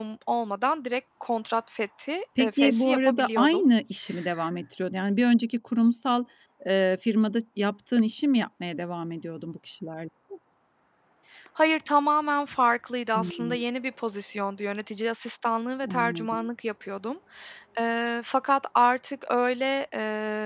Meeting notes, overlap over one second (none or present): present